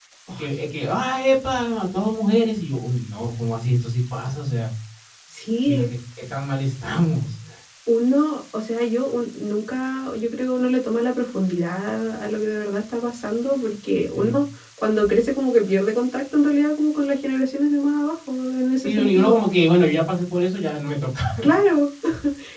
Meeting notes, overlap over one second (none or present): none